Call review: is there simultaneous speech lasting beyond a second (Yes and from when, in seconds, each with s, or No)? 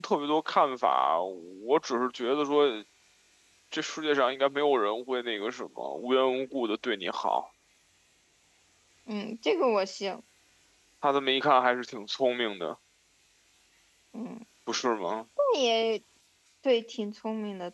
No